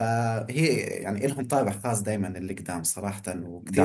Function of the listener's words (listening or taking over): listening